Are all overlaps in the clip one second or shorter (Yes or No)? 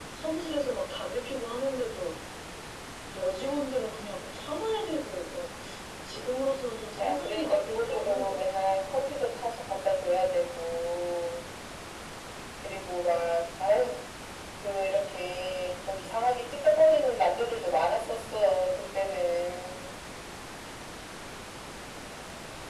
No